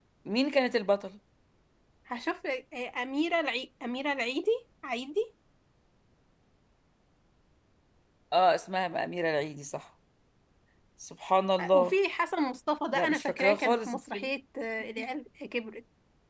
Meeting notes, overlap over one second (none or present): present